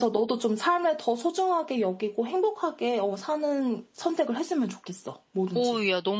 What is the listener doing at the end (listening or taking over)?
taking over